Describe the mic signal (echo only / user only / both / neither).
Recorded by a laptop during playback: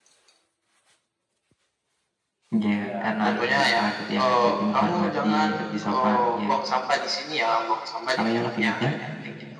echo only